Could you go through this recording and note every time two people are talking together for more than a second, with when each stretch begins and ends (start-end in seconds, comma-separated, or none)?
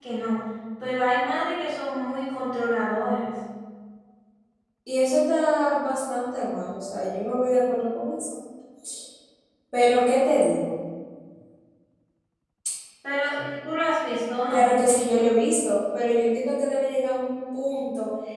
none